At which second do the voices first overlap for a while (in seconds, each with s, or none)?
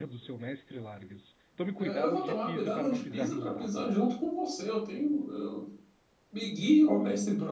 1.8 s